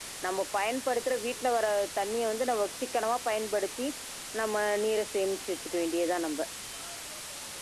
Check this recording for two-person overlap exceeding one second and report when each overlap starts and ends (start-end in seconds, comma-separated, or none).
none